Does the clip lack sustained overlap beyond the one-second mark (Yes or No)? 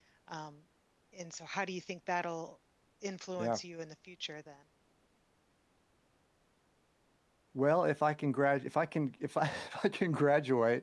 Yes